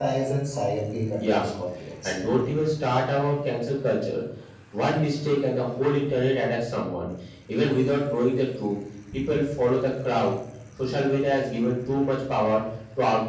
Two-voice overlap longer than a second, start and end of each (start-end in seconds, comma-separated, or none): none